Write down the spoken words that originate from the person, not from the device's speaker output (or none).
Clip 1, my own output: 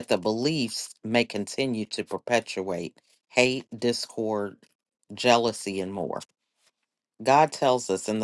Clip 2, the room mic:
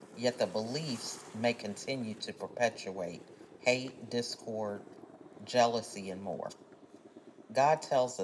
none